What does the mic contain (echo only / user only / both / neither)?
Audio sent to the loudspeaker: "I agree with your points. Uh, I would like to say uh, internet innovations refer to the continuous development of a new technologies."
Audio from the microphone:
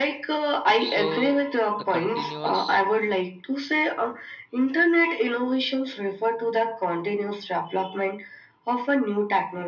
both